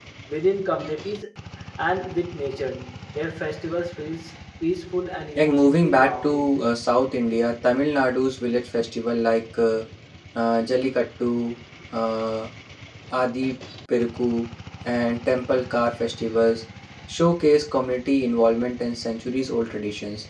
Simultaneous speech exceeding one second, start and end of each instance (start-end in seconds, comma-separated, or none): 5.4-6.6